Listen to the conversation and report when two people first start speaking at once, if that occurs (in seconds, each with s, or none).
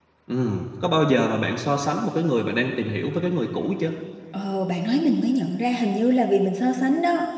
none